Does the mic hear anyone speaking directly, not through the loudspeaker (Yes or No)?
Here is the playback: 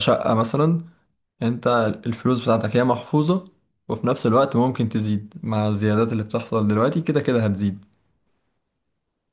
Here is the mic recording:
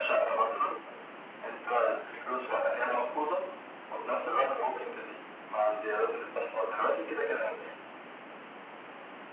No